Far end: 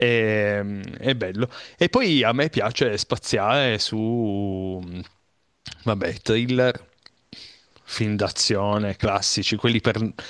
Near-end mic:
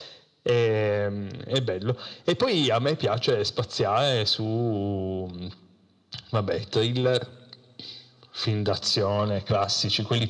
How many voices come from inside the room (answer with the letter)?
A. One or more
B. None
B